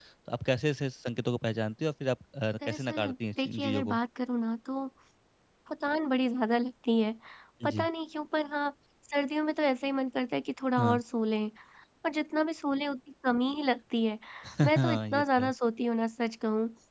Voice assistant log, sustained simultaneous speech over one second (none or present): present